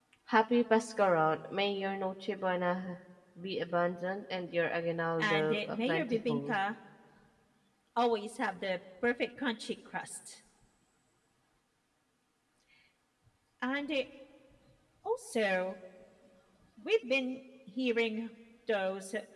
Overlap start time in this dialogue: 5.2 s

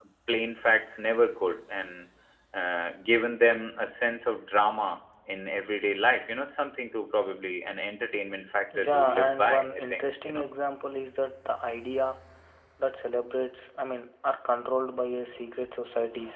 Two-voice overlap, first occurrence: 8.7 s

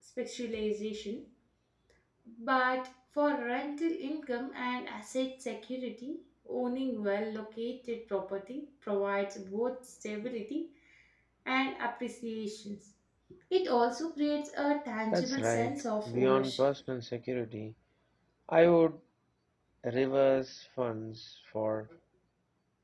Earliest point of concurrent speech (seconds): 15.1 s

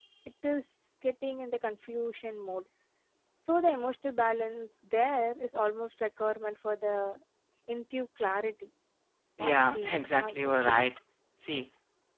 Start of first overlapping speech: 9.4 s

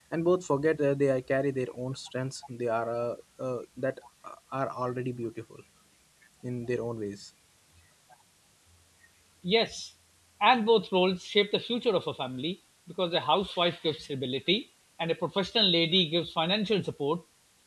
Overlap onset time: none

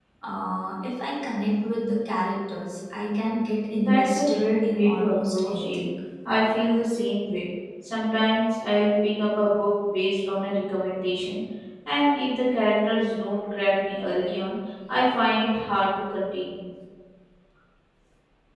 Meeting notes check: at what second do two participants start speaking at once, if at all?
3.8 s

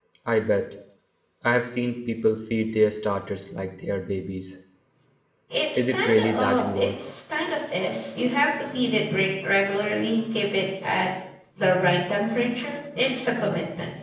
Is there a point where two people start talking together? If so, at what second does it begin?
5.8 s

